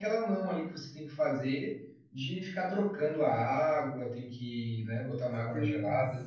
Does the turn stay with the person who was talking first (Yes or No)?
No